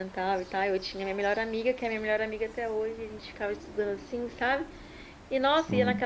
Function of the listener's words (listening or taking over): listening